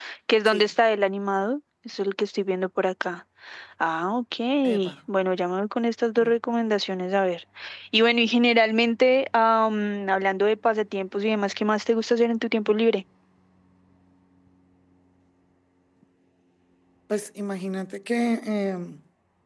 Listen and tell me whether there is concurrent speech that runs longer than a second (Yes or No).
No